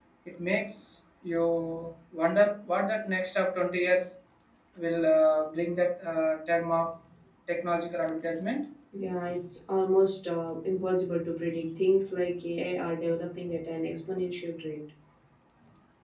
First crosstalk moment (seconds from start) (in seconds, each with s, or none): none